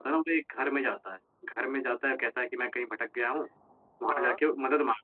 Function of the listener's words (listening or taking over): listening